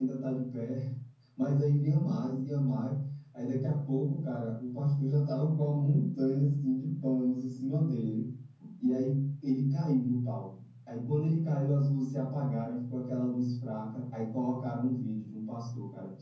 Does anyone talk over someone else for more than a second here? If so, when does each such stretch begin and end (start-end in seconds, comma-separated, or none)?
none